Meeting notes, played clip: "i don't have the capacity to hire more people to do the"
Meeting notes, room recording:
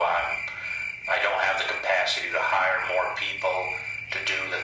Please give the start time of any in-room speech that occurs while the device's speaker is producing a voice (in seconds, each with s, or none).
none